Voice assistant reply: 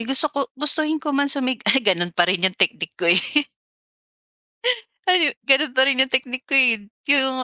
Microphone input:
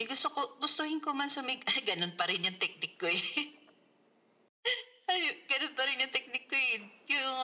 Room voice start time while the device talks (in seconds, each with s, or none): none